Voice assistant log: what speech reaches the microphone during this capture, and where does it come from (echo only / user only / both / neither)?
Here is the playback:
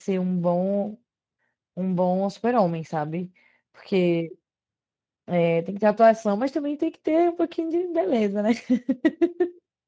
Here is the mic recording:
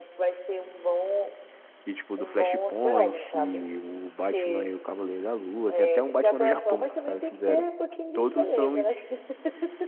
both